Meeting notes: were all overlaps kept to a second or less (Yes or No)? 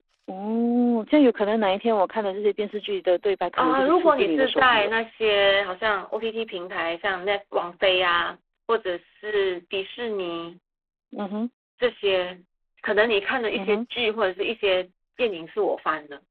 No